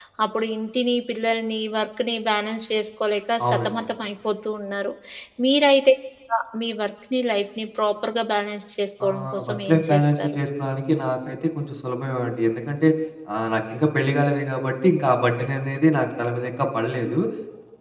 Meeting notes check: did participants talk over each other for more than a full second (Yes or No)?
Yes